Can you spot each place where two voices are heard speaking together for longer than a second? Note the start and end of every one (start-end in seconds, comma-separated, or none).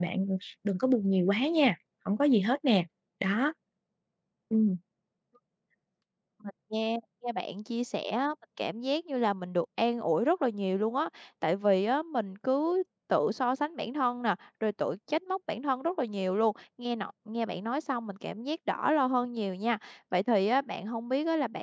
none